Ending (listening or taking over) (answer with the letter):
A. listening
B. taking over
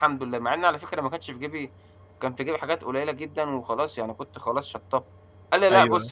B